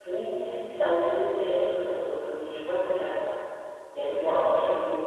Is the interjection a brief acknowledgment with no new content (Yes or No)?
Yes